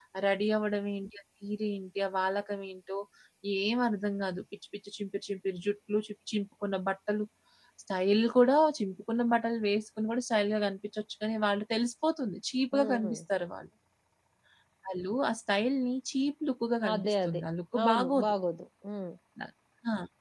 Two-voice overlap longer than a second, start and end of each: none

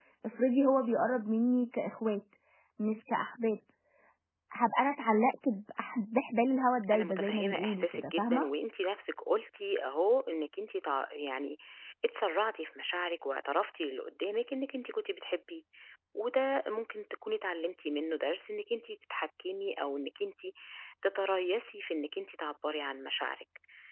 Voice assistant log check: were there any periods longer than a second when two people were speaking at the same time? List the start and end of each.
6.9-8.5

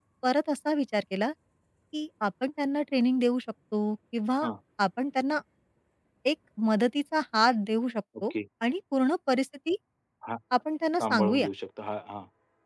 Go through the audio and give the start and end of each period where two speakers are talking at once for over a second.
none

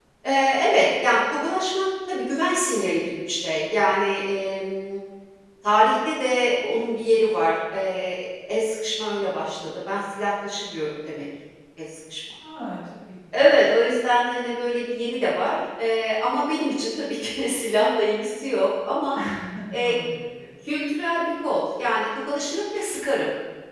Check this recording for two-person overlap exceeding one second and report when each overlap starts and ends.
none

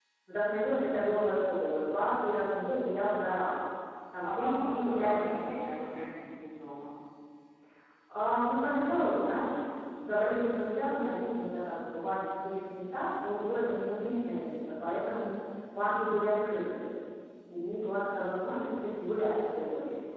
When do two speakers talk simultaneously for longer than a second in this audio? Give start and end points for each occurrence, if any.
4.2-5.6

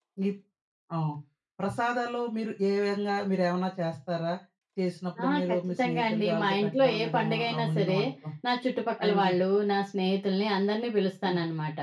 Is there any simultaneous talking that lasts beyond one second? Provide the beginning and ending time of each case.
5.2-8.0

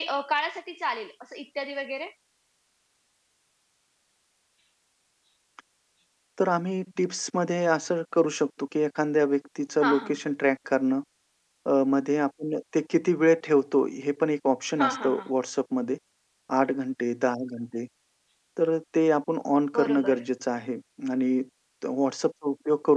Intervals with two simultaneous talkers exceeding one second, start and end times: none

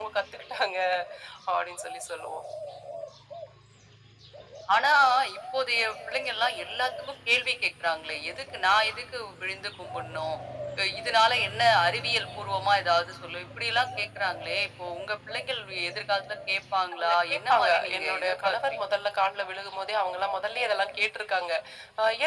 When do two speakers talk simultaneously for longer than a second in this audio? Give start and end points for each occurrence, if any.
17.0-18.9

